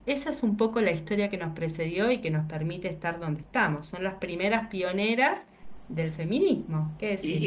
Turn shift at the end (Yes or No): Yes